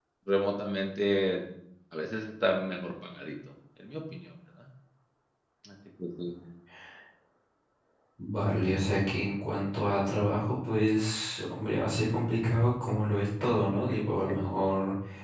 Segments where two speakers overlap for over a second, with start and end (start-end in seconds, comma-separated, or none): none